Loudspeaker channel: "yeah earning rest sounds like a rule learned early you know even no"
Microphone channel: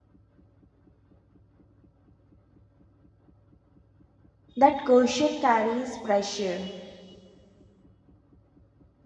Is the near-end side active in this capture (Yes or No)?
Yes